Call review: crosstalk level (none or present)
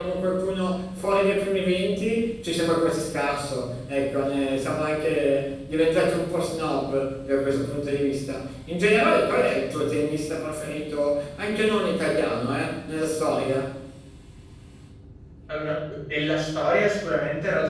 none